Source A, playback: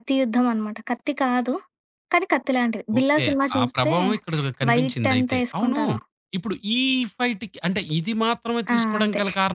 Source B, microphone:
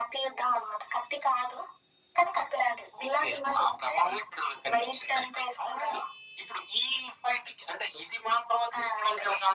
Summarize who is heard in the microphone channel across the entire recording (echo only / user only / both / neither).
echo only